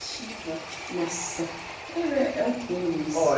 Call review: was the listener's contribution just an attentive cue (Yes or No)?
No